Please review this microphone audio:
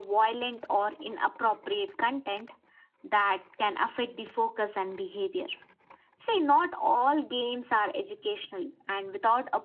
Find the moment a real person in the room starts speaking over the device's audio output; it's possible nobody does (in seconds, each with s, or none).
none